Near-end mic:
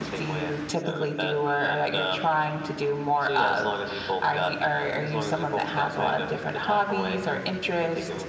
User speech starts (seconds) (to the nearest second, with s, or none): none